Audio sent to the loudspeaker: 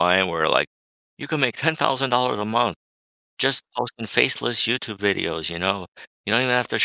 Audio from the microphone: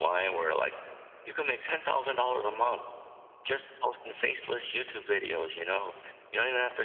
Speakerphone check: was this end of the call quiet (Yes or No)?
Yes